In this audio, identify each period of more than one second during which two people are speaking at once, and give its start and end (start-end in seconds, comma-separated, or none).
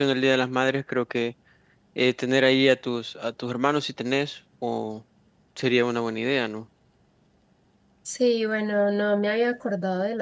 none